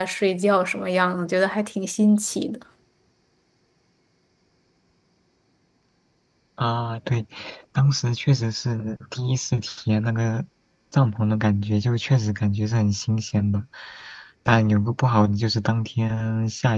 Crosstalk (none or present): none